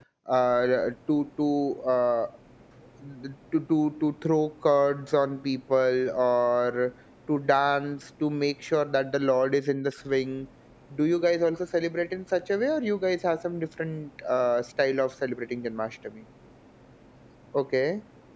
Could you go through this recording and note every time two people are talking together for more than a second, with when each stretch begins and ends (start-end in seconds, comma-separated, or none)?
none